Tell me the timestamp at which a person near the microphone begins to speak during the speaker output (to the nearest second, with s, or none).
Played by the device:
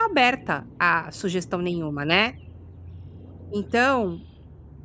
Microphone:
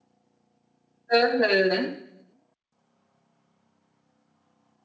1 s